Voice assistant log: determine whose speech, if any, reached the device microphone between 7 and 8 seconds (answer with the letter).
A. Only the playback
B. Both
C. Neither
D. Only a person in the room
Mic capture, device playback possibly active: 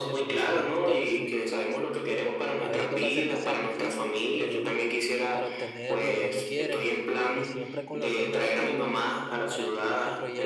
B